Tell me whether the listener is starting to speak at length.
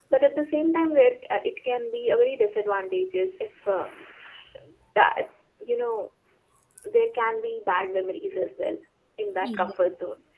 No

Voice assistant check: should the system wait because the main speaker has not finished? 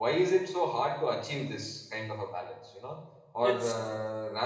Yes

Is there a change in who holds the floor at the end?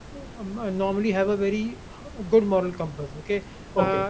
No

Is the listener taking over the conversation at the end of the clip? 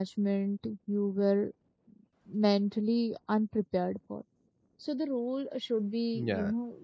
No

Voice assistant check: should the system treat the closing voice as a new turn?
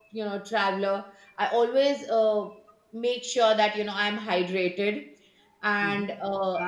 Yes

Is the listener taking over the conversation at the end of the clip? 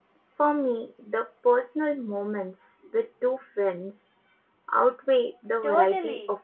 Yes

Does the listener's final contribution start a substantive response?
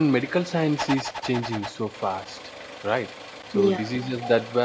No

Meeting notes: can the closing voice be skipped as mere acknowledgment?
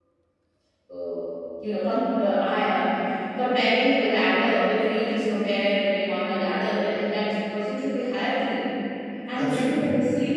Yes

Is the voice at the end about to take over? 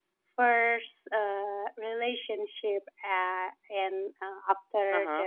No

